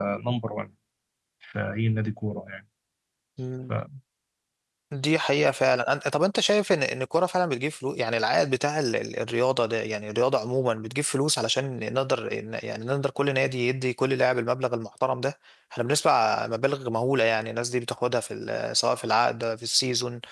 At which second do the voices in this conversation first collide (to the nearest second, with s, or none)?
none